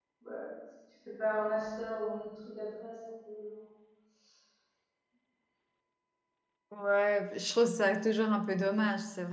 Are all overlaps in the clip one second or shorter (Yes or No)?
Yes